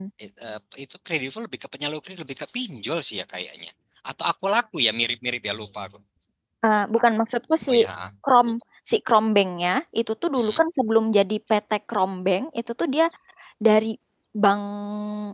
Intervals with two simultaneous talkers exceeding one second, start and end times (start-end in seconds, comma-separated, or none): none